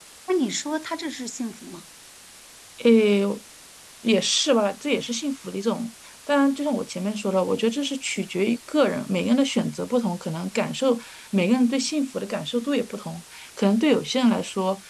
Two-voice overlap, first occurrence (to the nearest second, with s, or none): none